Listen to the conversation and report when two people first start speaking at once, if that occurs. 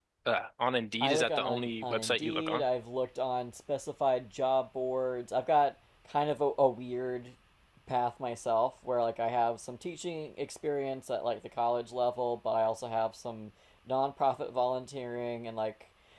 1.0 s

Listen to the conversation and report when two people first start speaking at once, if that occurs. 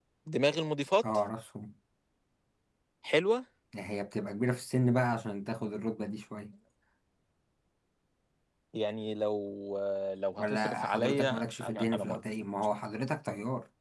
10.4 s

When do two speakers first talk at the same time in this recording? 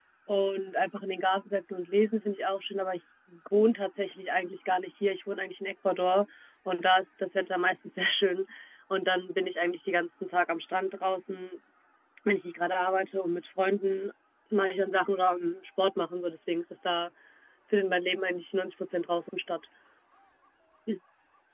none

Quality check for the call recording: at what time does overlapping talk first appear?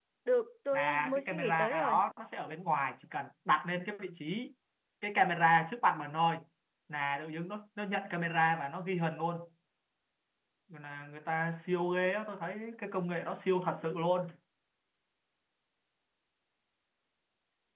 0.7 s

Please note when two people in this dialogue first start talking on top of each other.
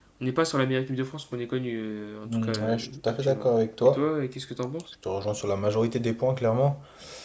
2.2 s

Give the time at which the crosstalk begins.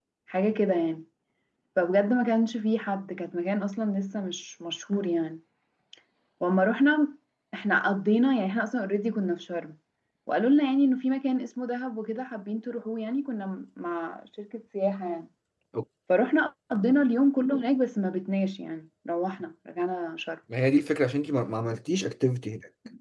none

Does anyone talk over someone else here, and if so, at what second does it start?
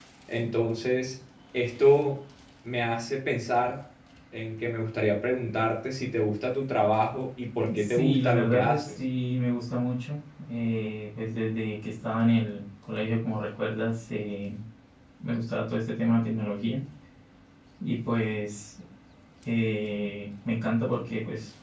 7.7 s

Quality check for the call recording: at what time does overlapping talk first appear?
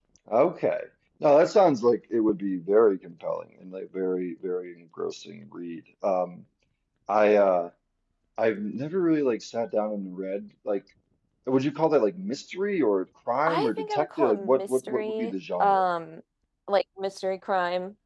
13.5 s

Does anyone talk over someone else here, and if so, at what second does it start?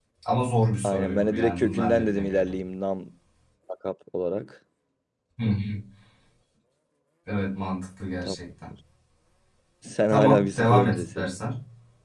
0.8 s

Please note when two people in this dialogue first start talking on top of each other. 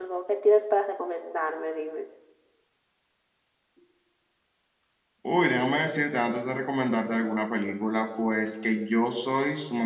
none

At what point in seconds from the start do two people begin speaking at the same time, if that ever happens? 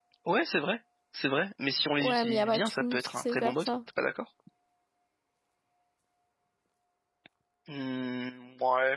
2.0 s

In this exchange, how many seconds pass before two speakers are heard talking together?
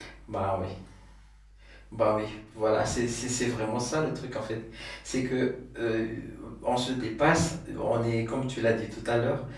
none

